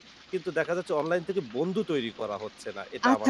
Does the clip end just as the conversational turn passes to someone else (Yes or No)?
Yes